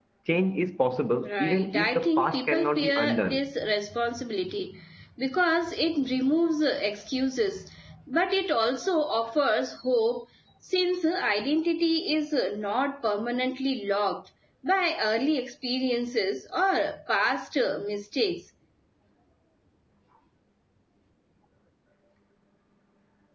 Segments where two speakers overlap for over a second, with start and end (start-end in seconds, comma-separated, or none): 1.3-3.4